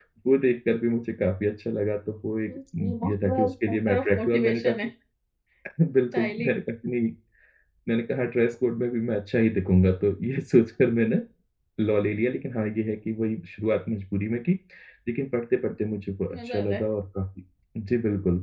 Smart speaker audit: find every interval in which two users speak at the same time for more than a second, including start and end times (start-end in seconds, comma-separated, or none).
2.5-4.8